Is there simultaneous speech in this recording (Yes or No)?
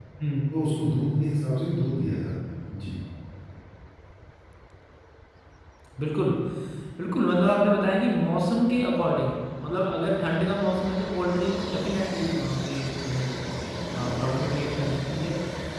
No